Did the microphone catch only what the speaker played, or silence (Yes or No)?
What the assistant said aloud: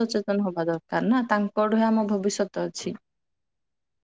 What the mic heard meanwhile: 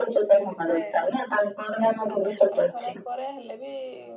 No